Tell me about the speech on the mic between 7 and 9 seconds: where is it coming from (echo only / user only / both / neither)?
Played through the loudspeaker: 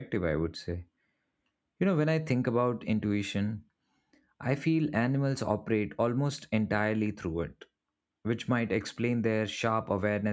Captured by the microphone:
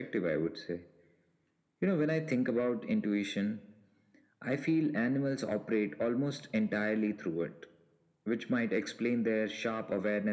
echo only